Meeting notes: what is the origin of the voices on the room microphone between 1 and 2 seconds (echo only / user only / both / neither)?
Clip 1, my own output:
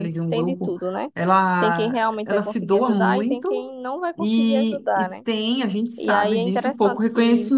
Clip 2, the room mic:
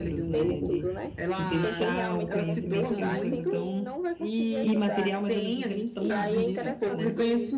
both